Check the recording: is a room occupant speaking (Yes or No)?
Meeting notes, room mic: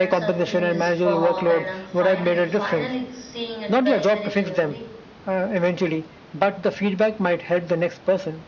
Yes